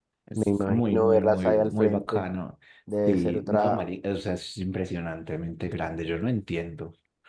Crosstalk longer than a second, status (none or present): present